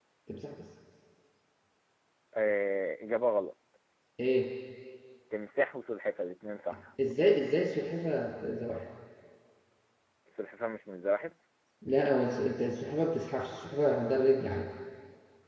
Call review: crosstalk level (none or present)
none